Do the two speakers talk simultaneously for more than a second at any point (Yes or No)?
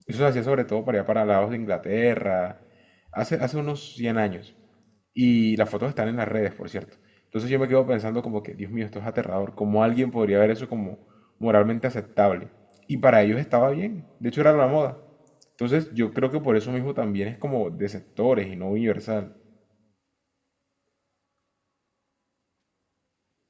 No